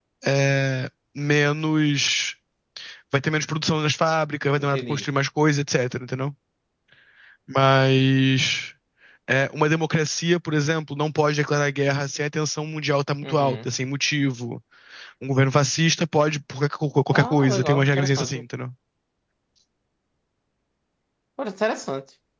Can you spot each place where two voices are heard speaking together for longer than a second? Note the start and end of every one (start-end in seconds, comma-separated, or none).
17.1-18.4